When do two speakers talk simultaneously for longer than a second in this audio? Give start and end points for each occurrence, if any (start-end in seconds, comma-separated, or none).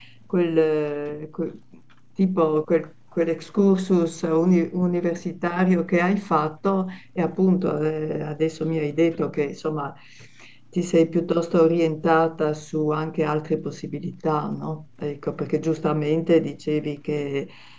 none